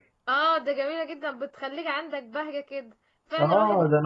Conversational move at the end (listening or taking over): taking over